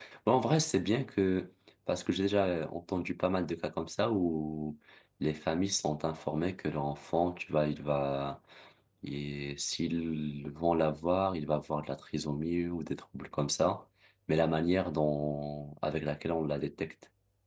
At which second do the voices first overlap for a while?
none

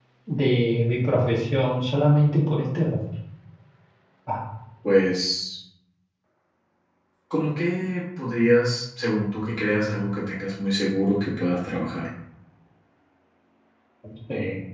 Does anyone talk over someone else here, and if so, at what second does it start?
none

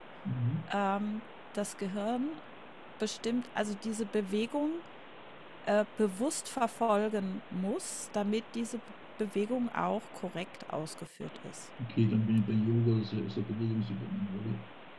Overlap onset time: none

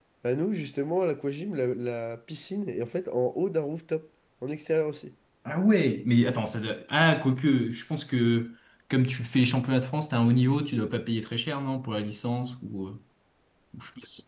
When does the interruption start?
none

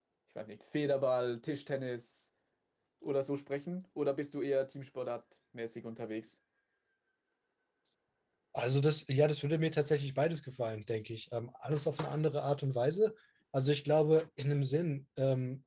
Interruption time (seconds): none

